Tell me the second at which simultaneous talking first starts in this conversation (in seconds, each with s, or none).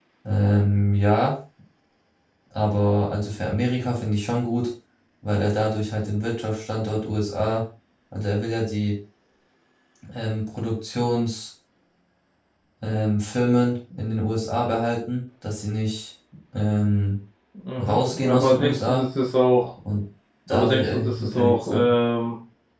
17.8 s